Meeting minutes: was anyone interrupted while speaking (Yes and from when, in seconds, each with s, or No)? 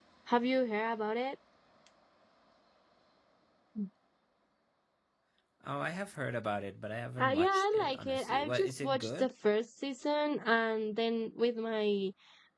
Yes, from 7.2 s